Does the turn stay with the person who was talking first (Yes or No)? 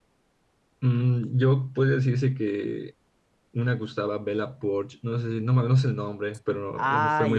No